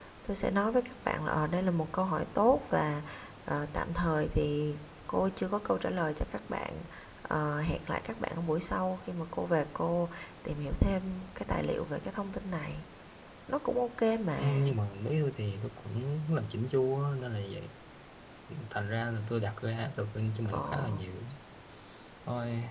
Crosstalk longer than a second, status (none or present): none